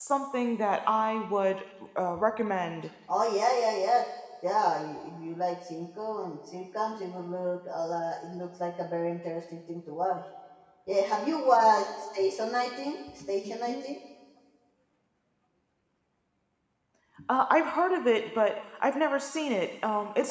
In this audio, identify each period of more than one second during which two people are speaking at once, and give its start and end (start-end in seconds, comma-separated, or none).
none